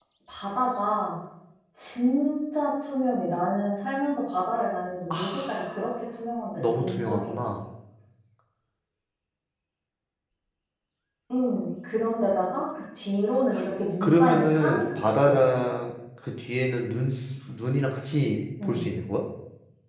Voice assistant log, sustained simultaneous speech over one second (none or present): present